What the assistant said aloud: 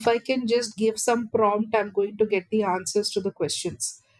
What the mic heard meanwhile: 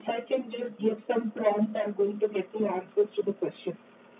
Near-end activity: none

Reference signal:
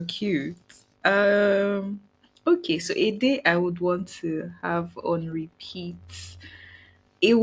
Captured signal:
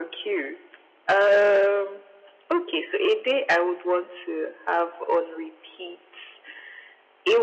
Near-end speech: none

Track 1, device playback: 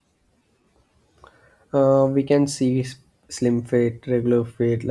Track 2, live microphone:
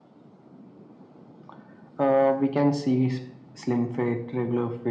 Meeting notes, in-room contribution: none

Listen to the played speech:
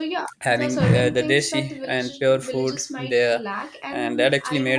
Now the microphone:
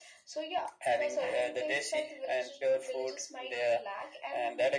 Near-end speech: none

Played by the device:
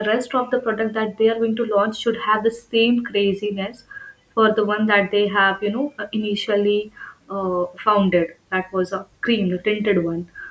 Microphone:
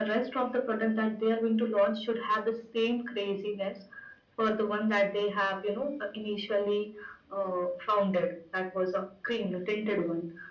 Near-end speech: none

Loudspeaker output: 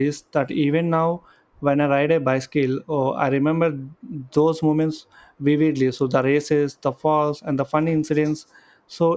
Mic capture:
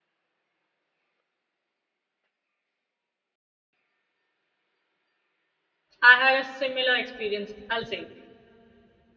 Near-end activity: present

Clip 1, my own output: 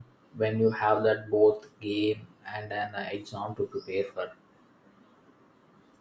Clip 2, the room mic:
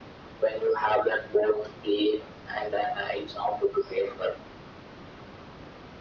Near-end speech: none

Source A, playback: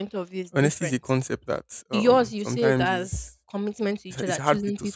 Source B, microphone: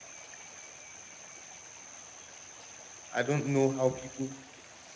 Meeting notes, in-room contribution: present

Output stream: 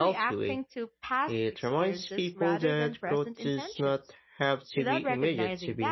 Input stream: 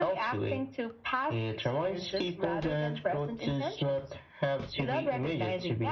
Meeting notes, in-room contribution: none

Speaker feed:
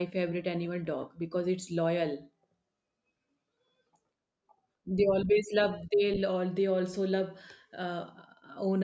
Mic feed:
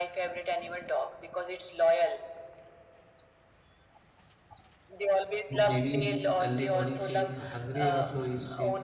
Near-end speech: present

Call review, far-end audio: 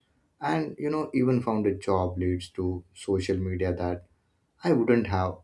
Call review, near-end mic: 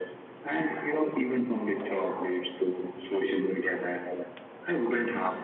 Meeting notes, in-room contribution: none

